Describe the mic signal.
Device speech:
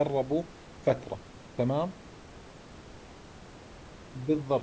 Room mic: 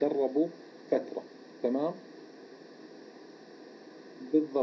echo only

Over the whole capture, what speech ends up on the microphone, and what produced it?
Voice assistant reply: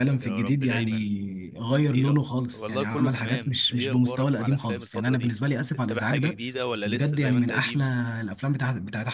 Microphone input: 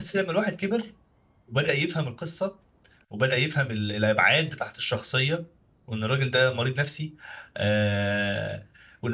user only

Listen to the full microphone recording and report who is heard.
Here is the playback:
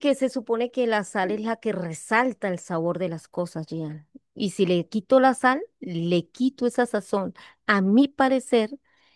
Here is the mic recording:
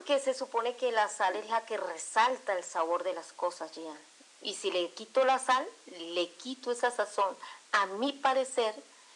echo only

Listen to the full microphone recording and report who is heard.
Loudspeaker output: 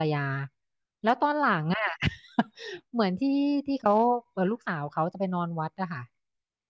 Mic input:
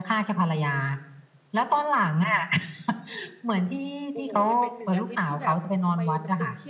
both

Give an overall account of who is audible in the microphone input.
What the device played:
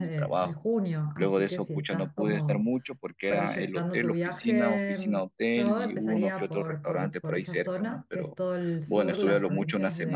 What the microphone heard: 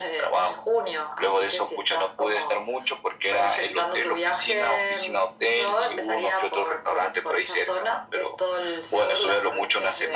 echo only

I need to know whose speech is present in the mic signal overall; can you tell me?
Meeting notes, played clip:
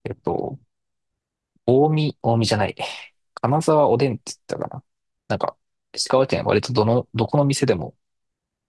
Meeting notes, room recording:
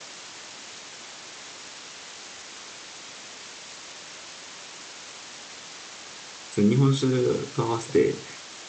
user only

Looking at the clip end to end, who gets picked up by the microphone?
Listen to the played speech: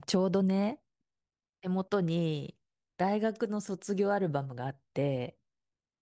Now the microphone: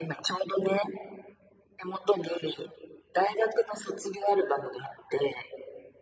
echo only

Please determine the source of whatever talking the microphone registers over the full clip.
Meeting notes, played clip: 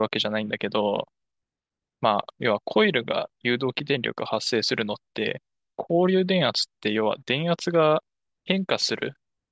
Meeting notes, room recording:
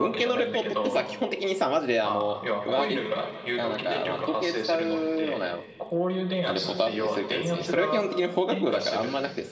both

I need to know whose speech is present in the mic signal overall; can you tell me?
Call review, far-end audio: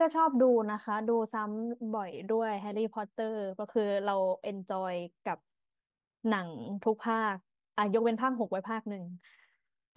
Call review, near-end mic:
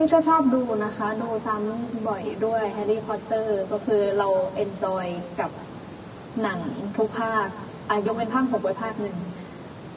echo only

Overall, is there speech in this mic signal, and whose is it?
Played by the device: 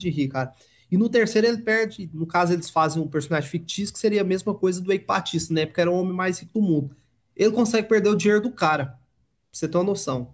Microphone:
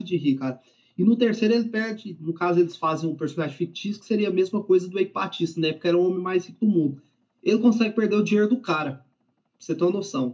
echo only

